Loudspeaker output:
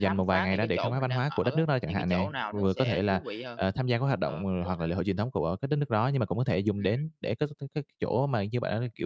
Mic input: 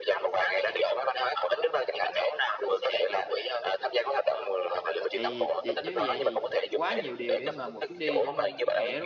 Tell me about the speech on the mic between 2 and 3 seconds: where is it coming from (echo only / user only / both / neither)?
echo only